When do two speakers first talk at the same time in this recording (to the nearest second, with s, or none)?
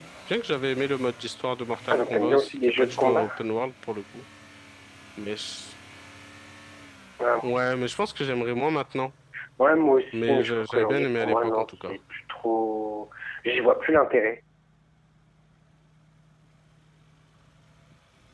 2 s